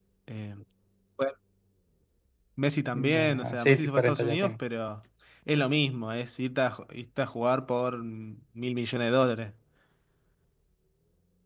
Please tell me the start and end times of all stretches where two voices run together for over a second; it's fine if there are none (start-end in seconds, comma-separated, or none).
2.9-4.5